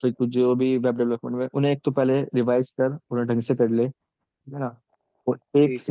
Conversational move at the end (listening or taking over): listening